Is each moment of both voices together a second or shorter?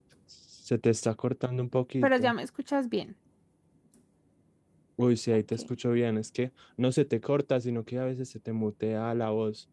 Yes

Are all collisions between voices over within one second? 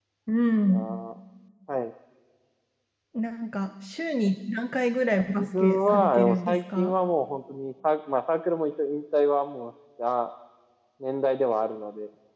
No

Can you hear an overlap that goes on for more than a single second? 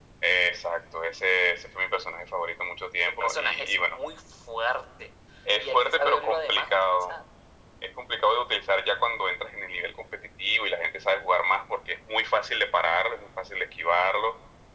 Yes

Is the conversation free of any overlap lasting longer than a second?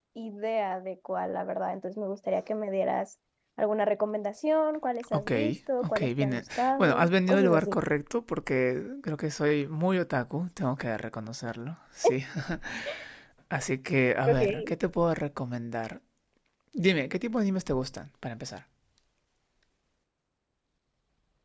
No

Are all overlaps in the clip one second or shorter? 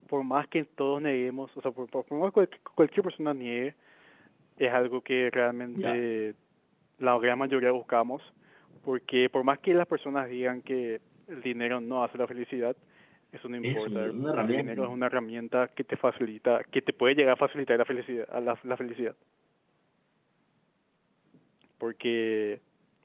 No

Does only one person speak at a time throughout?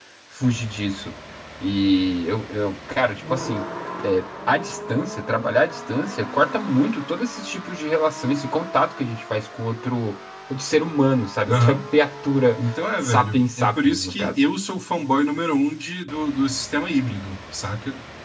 No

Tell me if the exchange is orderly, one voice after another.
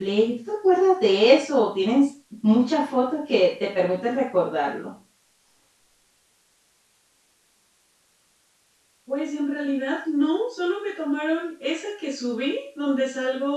Yes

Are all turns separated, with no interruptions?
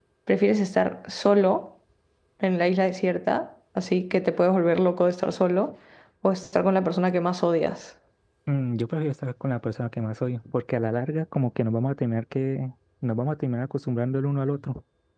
Yes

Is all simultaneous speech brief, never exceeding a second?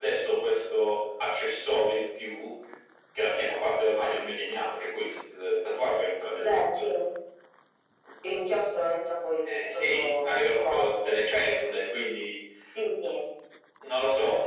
No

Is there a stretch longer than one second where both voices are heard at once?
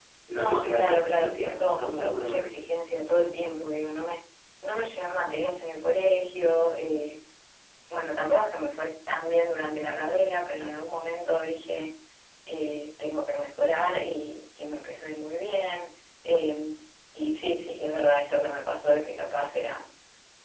Yes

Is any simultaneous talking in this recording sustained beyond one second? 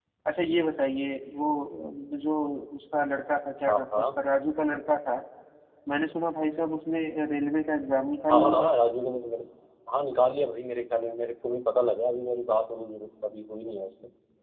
No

